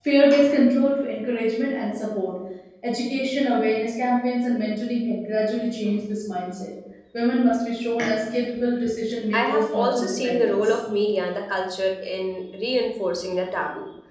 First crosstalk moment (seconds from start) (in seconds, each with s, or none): 9.3 s